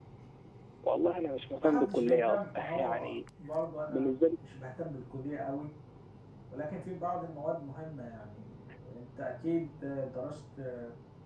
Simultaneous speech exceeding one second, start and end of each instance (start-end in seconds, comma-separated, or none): 1.6-3.1